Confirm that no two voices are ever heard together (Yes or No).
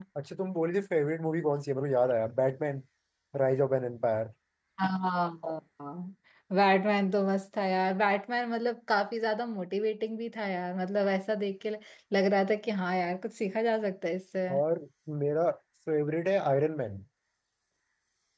Yes